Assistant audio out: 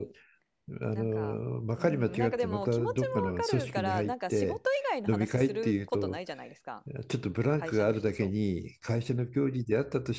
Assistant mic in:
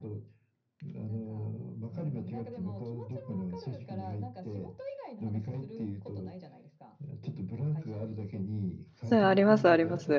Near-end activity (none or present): present